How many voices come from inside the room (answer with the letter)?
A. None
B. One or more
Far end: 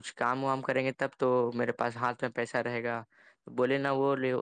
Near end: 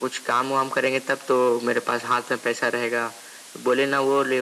A